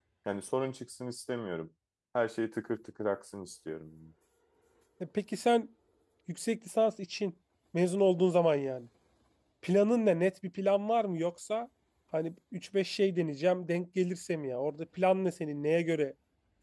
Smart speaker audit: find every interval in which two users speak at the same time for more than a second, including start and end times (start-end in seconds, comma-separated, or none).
none